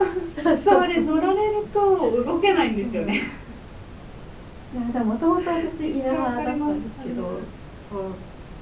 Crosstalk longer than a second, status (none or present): present